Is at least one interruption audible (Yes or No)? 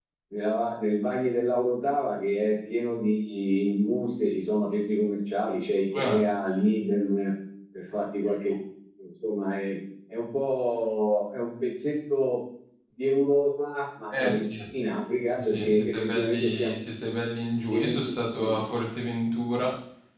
Yes